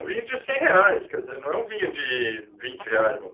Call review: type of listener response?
taking over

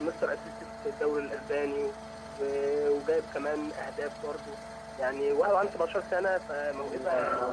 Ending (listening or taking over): taking over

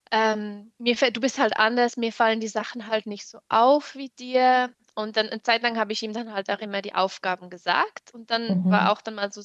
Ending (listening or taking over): listening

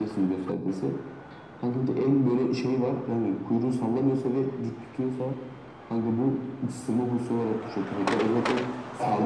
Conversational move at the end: listening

